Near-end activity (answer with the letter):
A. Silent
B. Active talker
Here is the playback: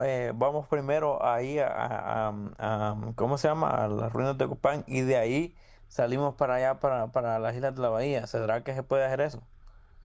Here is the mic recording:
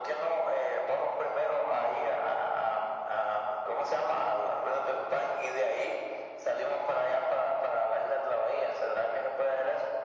A